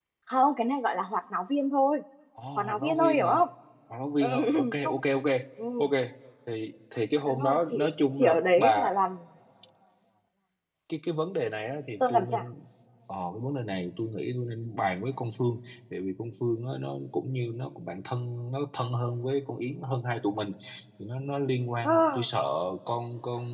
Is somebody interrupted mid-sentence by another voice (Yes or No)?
Yes